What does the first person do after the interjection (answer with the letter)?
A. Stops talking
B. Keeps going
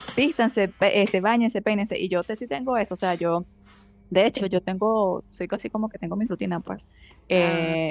B